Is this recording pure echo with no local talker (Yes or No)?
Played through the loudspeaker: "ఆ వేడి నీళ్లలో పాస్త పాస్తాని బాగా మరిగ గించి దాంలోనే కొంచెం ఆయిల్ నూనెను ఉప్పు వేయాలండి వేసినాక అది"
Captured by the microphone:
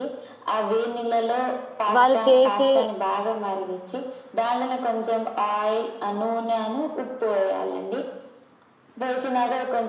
No